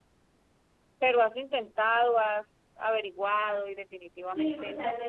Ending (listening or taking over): taking over